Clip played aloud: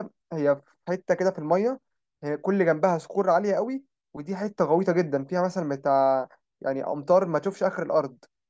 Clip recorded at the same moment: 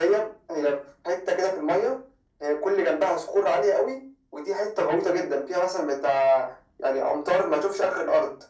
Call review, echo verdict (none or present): present